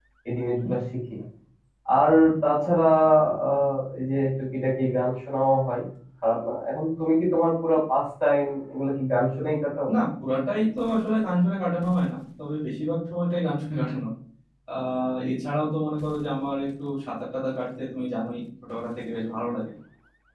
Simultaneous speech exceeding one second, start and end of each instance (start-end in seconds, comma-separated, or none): none